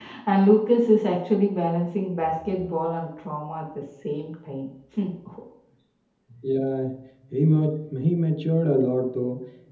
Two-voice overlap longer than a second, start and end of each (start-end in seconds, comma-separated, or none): none